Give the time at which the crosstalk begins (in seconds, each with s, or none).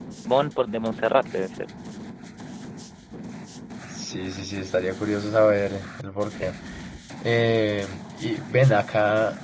none